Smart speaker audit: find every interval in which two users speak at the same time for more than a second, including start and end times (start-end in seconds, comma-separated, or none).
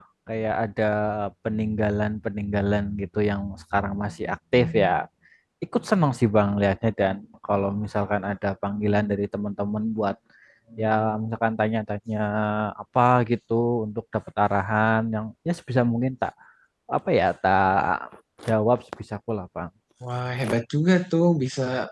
none